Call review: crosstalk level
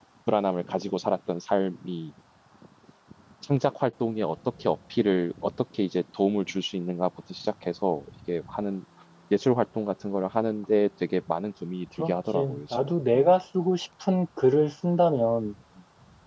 present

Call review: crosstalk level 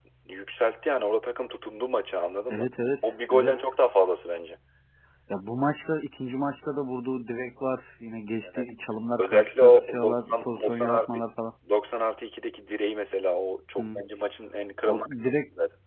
present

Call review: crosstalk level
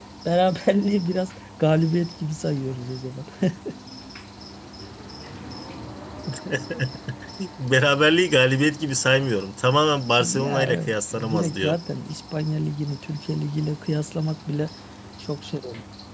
present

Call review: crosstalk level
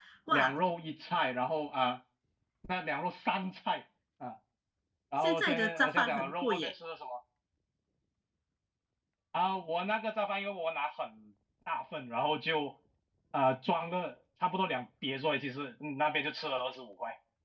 present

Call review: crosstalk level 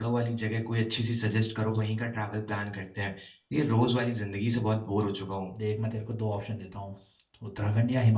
none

